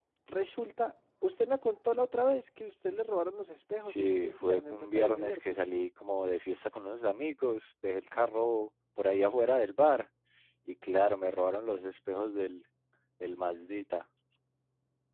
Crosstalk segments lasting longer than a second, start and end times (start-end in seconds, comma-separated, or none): 3.8-5.6